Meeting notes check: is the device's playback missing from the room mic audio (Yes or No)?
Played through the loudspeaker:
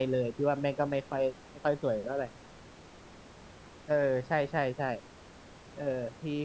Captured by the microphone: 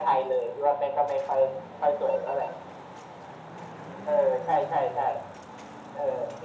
No